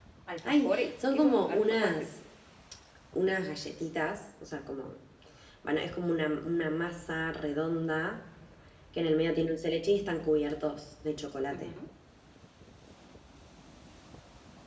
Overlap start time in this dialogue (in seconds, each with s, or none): 0.7 s